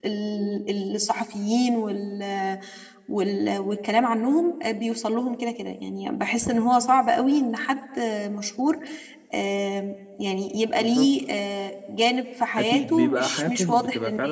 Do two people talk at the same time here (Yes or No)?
Yes